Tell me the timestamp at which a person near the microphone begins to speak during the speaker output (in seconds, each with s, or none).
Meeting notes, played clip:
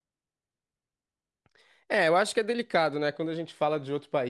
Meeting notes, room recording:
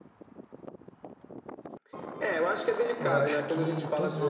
3.0 s